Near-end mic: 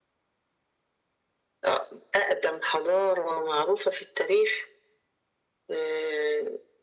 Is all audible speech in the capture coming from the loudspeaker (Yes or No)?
Yes